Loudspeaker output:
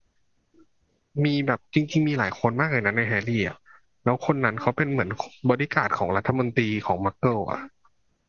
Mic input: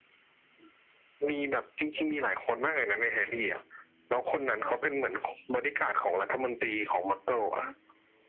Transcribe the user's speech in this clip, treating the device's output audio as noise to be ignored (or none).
none